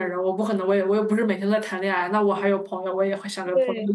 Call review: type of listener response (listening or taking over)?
taking over